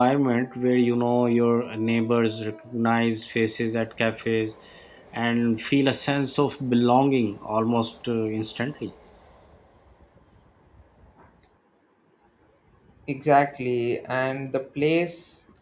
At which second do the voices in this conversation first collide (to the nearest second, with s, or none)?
none